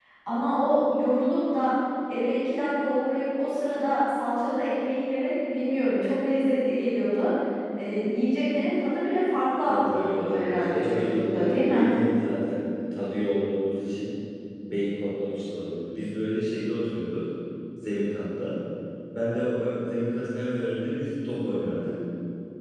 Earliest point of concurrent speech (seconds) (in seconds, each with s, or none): 9.6 s